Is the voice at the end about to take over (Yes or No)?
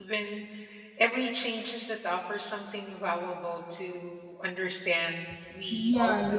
Yes